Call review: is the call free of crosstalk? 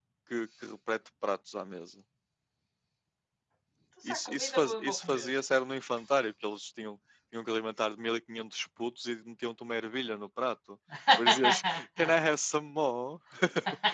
No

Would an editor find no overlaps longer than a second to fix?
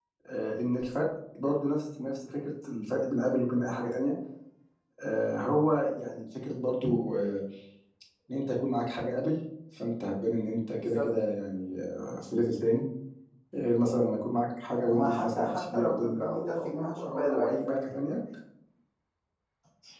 No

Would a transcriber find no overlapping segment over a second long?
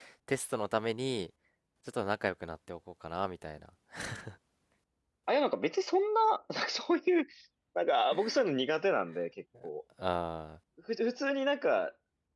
Yes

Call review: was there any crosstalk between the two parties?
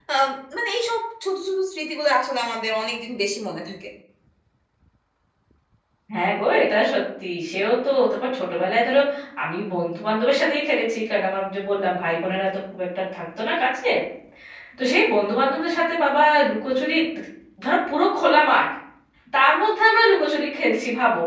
No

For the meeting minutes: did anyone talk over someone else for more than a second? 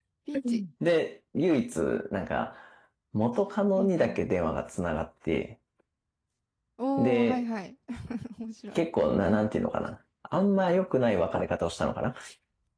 No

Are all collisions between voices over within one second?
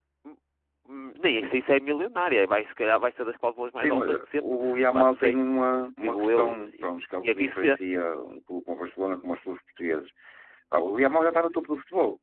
No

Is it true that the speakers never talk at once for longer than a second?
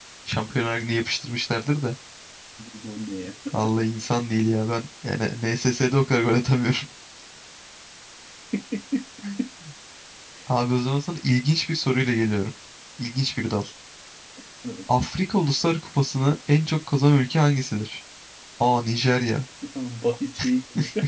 Yes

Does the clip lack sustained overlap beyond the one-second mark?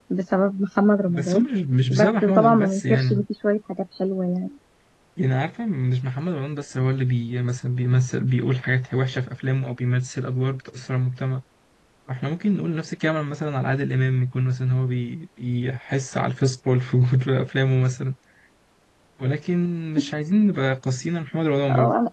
No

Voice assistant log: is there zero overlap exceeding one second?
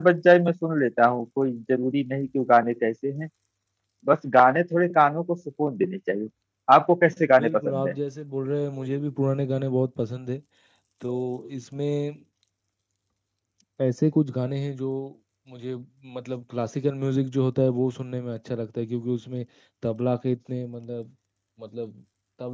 Yes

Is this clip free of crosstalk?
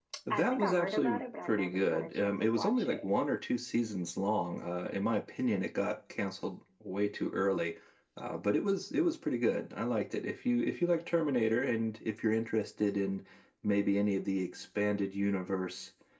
No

